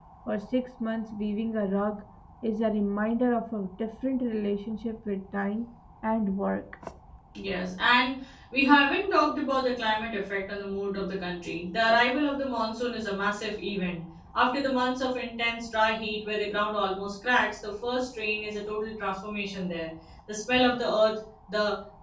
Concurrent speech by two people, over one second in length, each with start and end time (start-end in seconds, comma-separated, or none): none